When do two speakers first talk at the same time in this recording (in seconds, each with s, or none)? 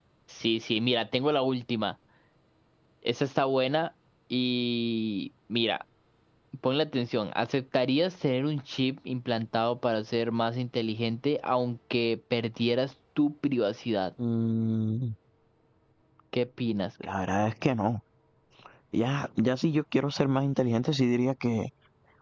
none